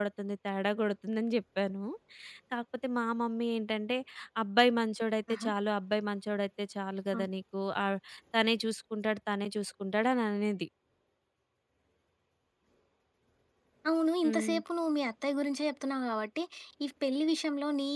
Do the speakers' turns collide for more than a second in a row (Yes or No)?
No